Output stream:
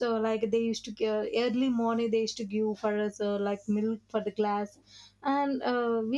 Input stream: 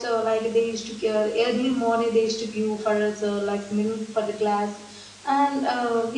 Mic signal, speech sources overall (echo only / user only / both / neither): echo only